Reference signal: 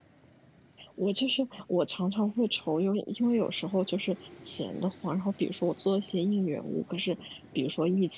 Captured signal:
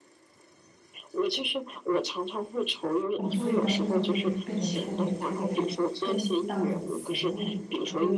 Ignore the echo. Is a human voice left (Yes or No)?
Yes